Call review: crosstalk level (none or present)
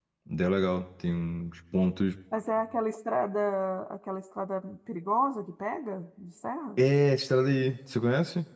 none